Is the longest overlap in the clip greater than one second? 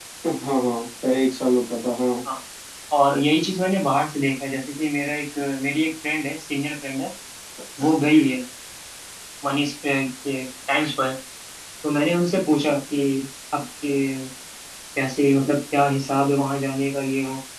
No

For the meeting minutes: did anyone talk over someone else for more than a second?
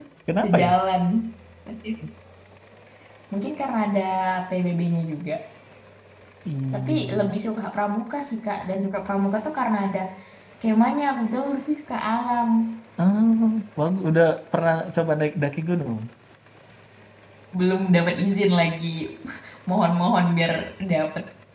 No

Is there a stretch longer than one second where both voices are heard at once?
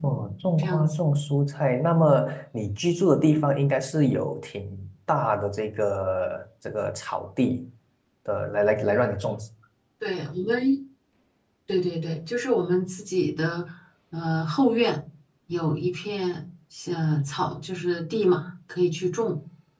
No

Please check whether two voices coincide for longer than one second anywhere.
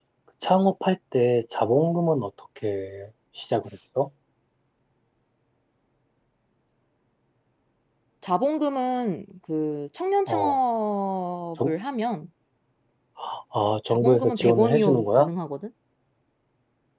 Yes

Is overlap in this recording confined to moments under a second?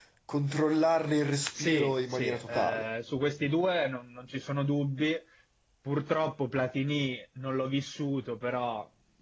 No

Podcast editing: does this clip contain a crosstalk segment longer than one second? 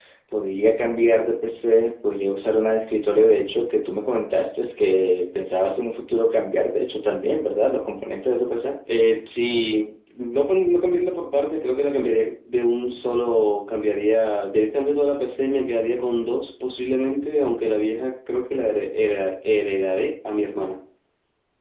No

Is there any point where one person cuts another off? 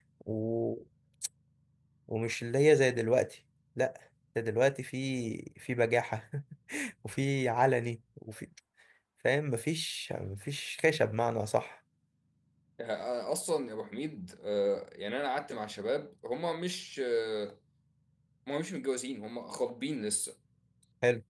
No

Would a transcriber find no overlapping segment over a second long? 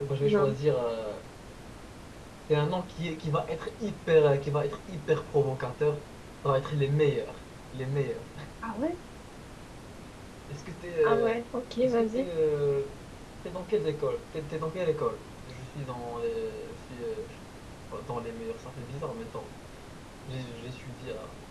Yes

